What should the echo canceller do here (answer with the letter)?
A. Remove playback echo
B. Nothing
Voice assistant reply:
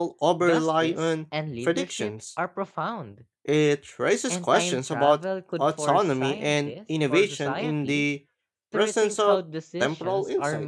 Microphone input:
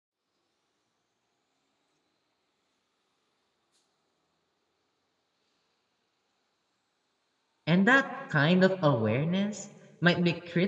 B